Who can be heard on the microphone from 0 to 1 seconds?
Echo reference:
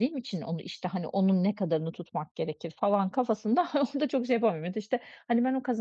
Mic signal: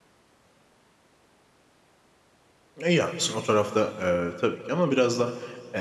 neither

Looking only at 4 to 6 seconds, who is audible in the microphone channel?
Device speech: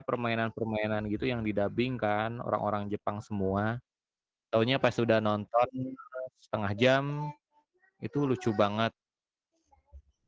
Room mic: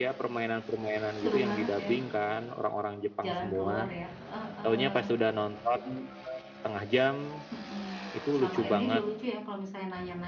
both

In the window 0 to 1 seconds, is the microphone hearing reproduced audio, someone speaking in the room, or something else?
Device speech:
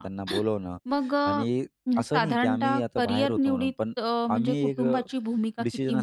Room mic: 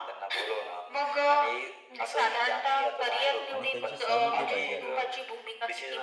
echo only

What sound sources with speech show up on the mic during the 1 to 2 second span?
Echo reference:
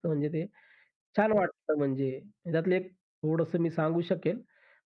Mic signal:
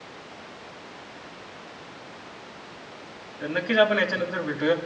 neither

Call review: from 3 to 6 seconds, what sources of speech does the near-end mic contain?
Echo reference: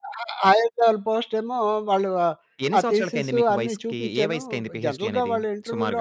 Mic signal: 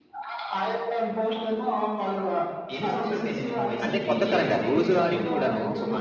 both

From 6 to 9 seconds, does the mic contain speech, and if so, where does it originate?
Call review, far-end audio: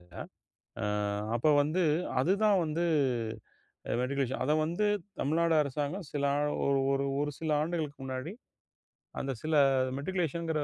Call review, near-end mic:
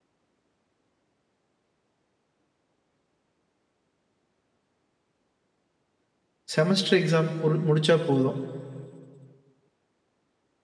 user only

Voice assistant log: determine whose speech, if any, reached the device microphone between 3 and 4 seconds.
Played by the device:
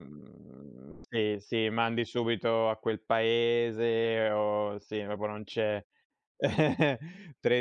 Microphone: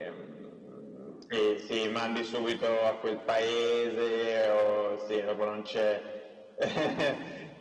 echo only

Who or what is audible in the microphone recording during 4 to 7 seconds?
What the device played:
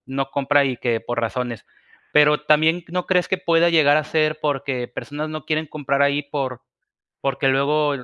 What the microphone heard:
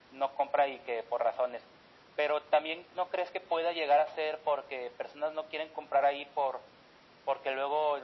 echo only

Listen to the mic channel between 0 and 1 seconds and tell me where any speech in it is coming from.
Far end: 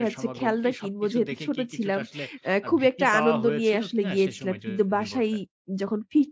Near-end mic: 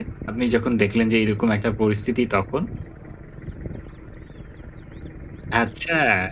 user only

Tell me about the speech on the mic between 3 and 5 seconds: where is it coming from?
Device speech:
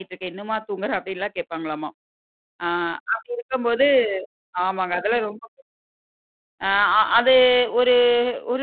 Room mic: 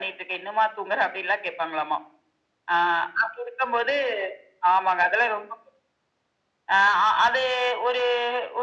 echo only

